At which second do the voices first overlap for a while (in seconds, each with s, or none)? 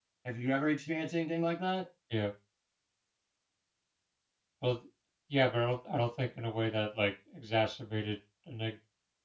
none